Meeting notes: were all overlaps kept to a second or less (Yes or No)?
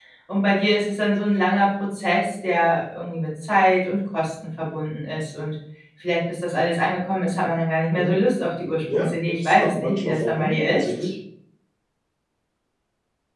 No